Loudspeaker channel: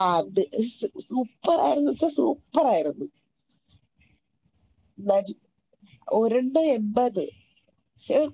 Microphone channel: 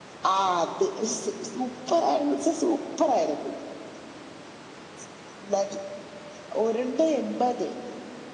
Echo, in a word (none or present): present